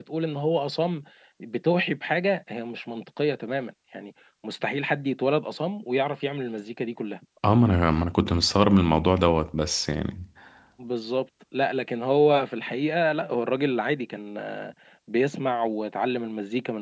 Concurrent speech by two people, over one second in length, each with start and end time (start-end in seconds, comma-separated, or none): none